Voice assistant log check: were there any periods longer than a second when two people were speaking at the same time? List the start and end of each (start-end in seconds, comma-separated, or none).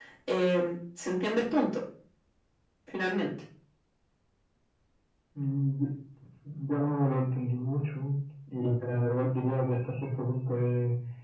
none